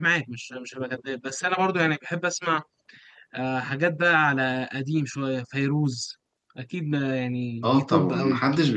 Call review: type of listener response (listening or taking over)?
taking over